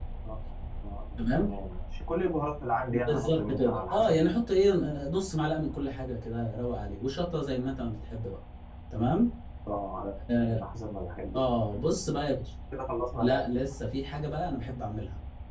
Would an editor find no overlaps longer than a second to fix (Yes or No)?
No